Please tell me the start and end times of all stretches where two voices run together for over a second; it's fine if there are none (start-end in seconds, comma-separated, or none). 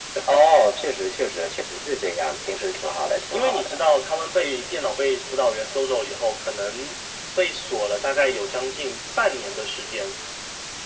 none